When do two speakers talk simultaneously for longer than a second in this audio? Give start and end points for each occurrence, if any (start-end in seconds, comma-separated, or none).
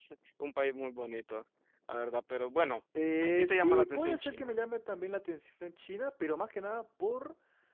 3.2-4.5